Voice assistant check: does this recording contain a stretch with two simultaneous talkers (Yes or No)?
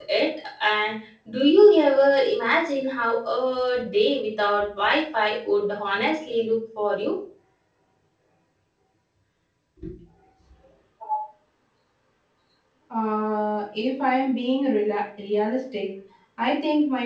No